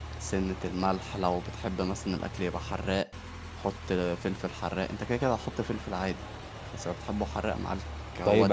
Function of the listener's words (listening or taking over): taking over